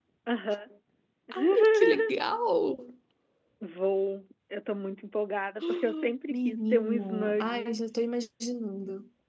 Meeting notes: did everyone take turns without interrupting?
No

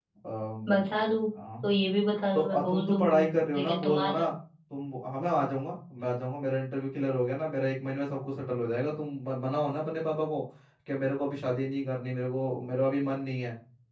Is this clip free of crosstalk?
No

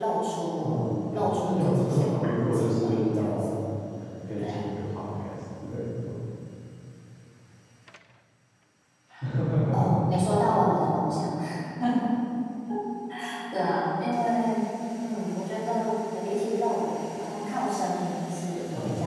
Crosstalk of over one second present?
Yes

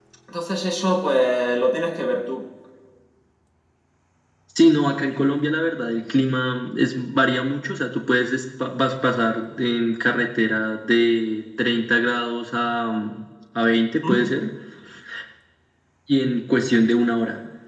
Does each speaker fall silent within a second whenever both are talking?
Yes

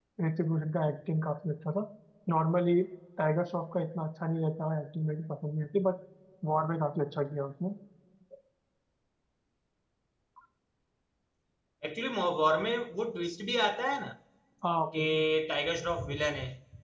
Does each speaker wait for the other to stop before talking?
Yes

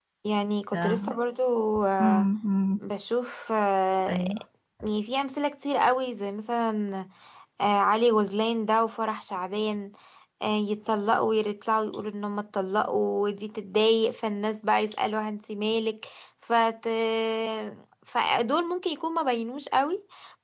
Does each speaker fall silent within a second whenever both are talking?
Yes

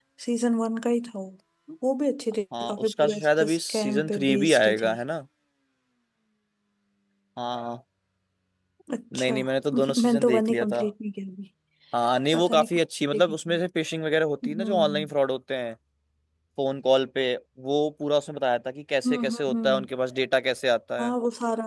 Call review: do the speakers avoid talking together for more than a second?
No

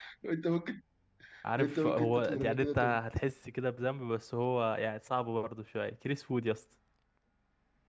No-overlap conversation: No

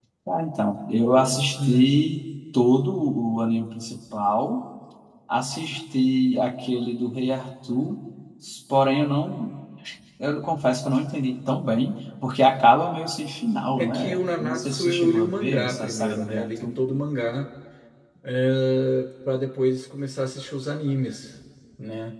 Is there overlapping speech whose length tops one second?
Yes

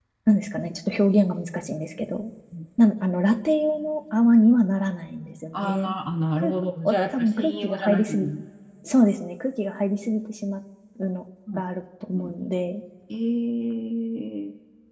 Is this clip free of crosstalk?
No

